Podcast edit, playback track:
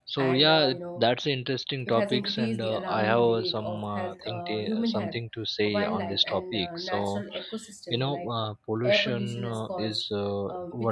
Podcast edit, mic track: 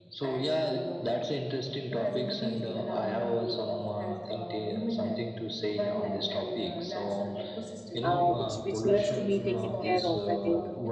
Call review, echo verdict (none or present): present